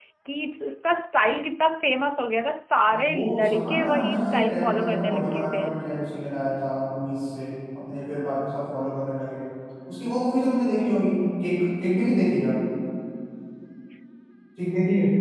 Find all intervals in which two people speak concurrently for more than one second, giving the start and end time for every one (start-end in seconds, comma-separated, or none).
3.0-5.7